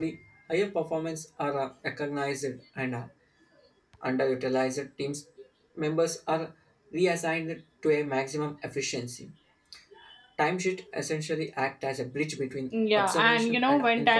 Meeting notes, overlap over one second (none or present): present